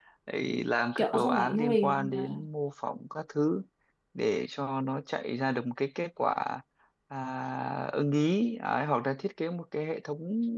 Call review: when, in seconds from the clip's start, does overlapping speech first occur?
1.0 s

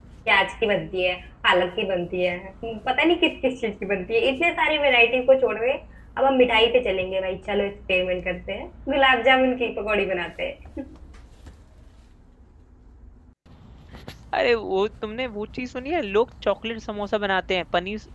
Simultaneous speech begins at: none

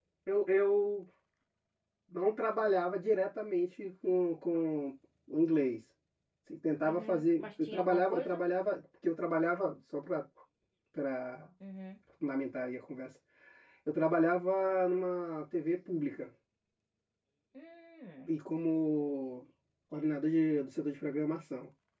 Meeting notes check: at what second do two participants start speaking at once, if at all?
6.8 s

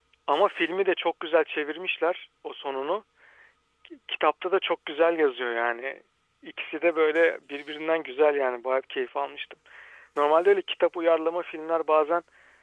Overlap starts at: none

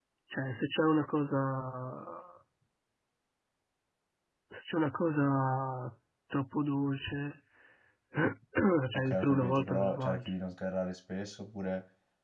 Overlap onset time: 8.9 s

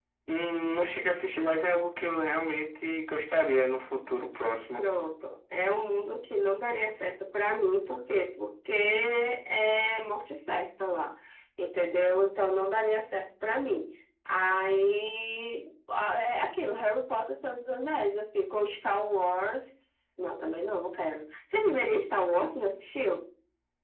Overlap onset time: none

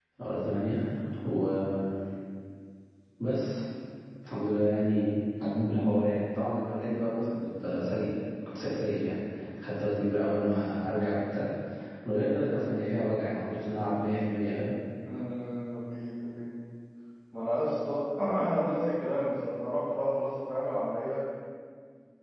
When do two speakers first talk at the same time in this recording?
none

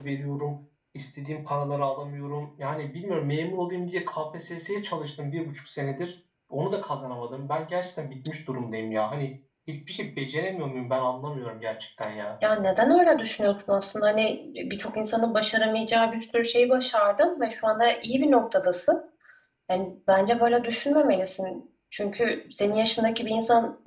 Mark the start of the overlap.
none

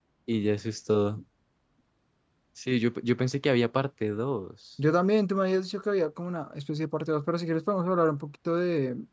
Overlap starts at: none

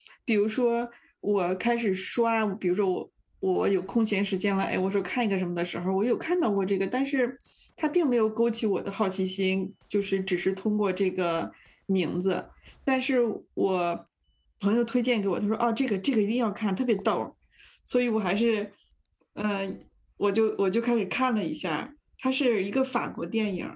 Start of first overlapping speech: none

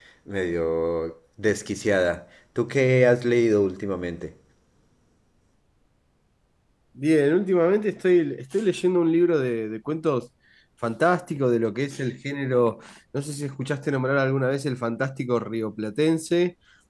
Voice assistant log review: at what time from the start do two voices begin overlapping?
none

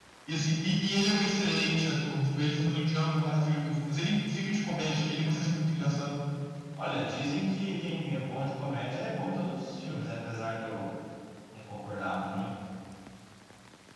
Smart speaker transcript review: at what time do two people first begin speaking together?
none

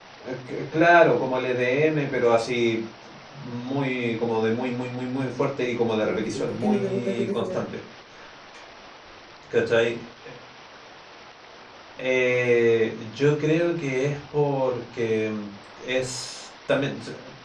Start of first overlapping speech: 6.0 s

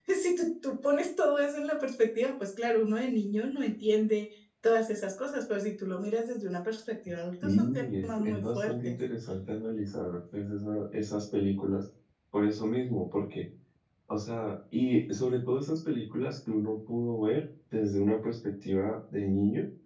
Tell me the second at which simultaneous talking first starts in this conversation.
7.4 s

